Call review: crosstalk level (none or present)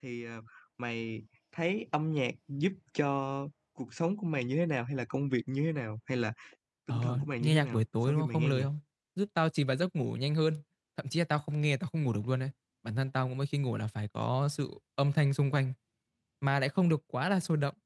present